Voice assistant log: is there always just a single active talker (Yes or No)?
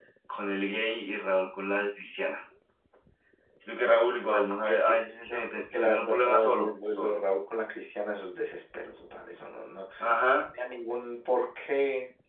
No